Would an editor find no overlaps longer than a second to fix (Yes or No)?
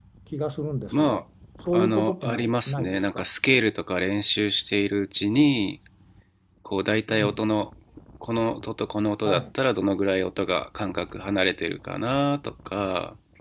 No